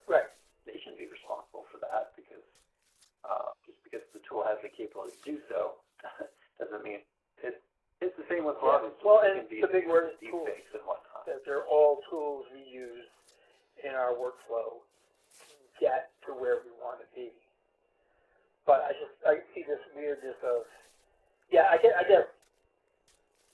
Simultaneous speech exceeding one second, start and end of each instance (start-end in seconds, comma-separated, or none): 8.6-10.7